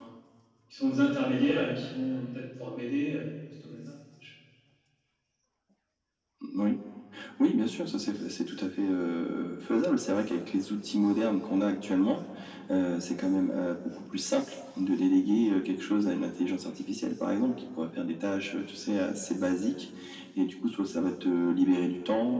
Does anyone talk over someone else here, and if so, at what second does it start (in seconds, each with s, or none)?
none